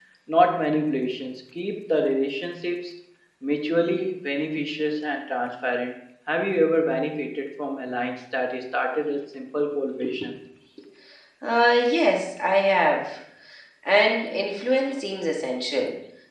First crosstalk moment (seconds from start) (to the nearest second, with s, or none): none